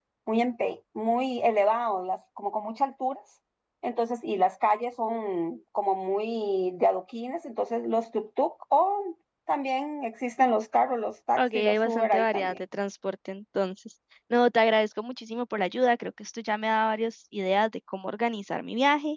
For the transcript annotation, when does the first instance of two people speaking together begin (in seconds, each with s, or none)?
11.4 s